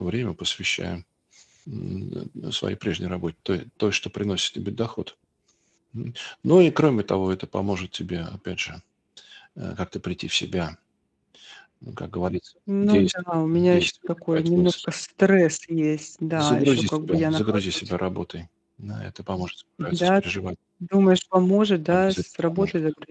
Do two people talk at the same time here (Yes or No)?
Yes